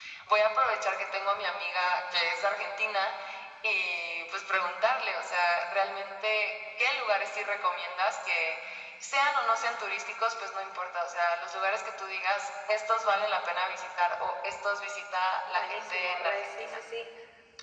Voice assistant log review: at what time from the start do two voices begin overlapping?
15.6 s

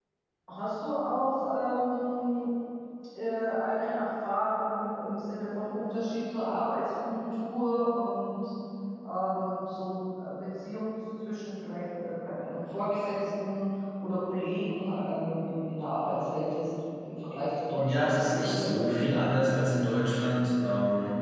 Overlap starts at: 17.8 s

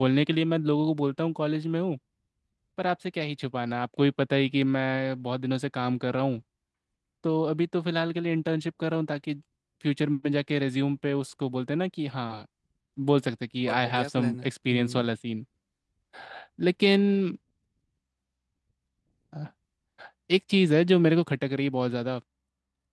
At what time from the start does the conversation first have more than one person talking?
13.7 s

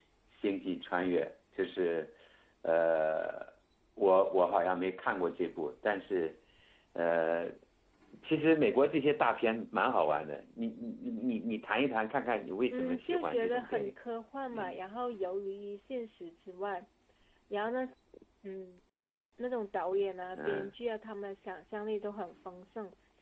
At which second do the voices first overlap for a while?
12.7 s

